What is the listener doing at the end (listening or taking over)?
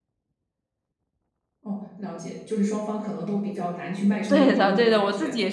taking over